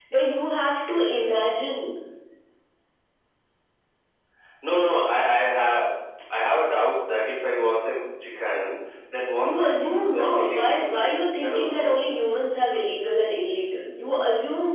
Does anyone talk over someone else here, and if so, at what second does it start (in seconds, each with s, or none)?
9.4 s